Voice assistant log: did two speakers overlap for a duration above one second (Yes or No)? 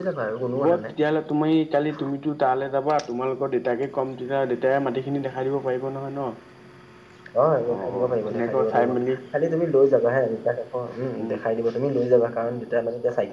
Yes